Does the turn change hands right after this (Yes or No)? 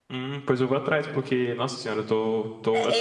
Yes